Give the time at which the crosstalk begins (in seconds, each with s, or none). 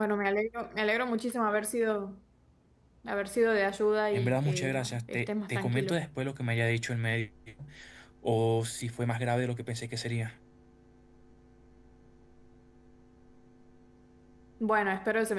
4.1 s